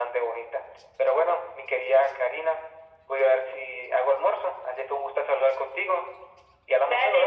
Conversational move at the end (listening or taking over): taking over